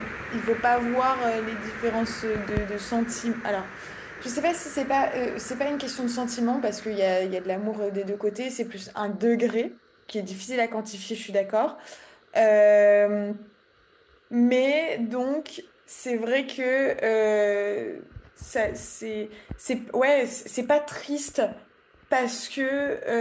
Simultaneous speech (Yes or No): No